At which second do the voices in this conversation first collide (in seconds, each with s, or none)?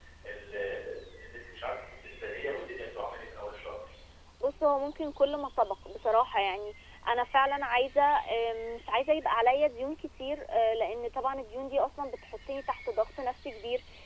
none